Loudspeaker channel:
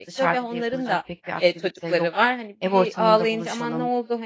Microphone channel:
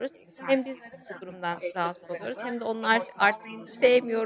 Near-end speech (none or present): present